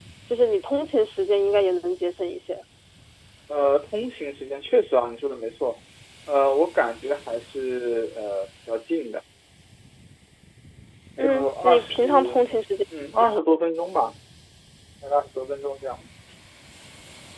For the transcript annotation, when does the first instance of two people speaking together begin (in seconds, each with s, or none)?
11.2 s